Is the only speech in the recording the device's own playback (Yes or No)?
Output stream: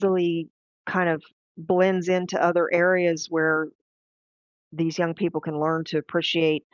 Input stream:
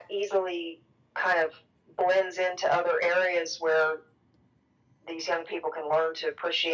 Yes